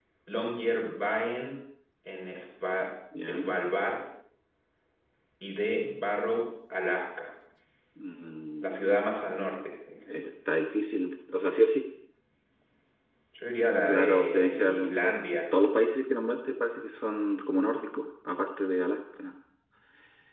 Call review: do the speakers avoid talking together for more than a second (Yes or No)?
No